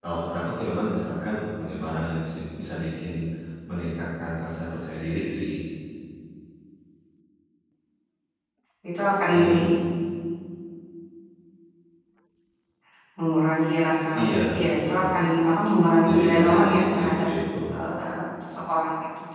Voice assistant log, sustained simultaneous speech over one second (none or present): present